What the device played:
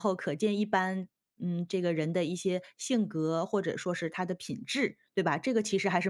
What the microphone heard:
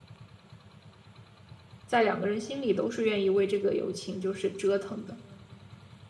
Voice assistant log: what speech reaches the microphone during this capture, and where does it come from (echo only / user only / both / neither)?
user only